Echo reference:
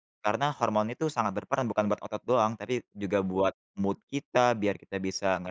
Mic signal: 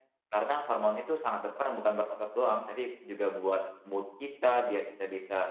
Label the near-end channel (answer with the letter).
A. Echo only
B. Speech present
A